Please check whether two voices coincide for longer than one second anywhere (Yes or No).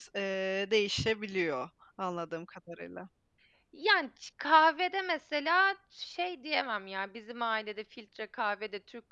No